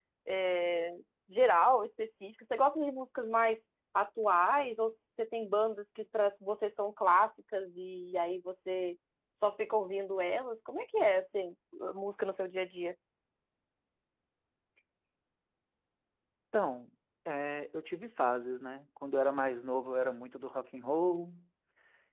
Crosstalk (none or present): none